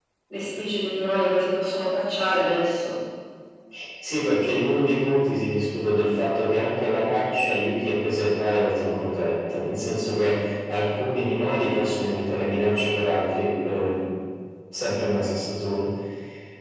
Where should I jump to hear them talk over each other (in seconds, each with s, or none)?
none